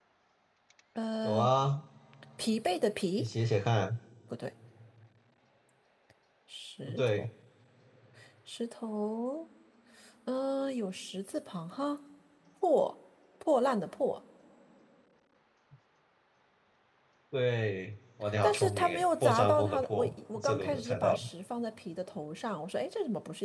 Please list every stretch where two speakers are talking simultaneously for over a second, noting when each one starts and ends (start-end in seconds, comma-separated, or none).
18.4-21.2